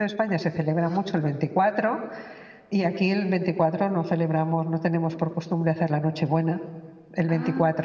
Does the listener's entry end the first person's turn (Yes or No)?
No